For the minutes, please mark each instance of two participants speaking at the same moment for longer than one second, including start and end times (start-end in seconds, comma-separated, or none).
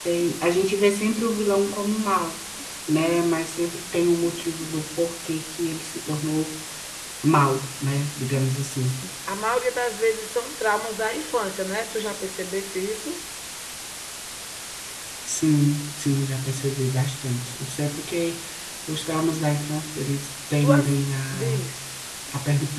none